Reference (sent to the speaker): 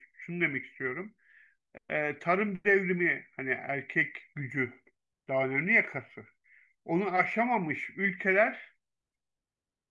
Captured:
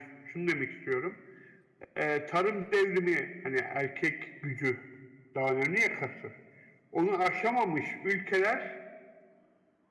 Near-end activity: none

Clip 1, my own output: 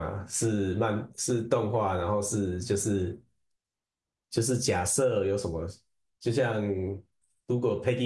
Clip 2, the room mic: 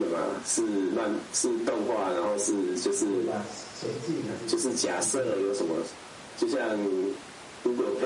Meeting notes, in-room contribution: present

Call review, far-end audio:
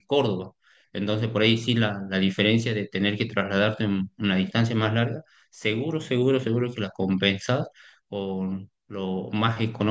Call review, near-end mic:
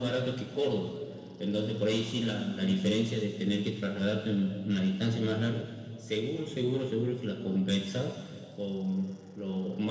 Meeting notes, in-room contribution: none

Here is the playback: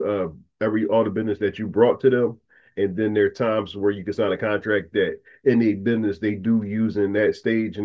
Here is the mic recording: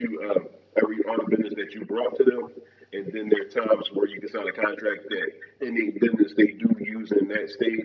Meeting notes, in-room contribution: none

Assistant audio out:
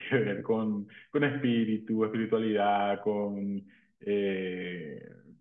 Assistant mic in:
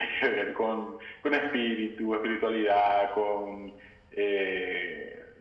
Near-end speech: none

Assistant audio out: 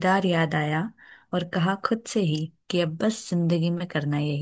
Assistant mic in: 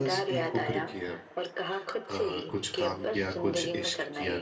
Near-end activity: present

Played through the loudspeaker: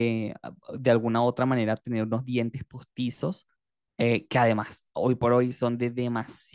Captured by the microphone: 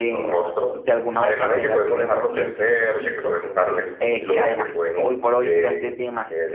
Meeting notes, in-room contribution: present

